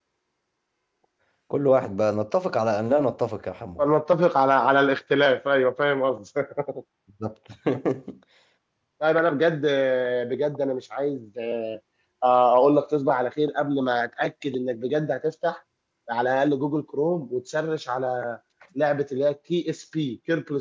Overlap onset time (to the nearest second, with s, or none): none